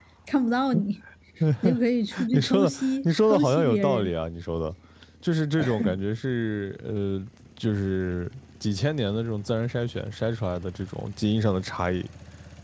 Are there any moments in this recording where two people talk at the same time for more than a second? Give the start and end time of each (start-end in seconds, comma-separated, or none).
2.3-4.1